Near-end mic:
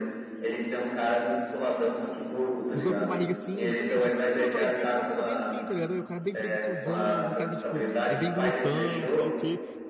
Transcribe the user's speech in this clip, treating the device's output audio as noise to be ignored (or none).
Os golpes com barriga, sim, exatamente. Pronto, a gente podia fazer uma coisa bem assim, tá ligado? O cara bem preguiçosão, aquele cara que, tipo, é bem glutão, sei lá o quê.